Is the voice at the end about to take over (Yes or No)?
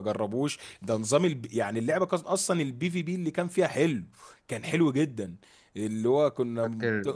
No